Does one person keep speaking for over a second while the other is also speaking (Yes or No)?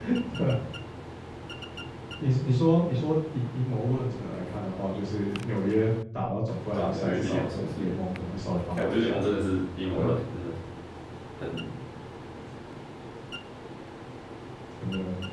Yes